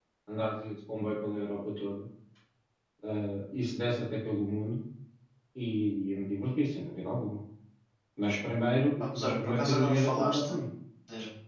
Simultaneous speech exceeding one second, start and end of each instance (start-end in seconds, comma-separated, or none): 9.0-10.5